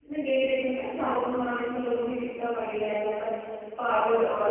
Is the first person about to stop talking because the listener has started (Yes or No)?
No